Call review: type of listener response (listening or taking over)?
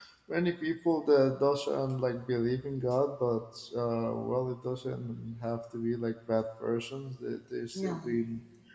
listening